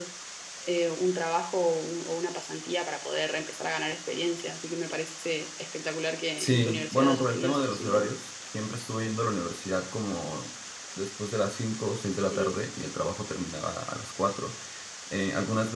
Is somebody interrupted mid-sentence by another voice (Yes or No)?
Yes